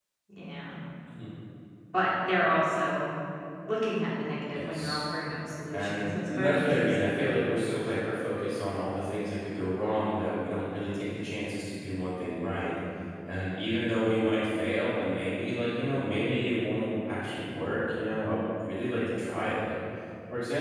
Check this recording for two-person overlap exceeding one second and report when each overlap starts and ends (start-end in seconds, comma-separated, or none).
5.7-7.2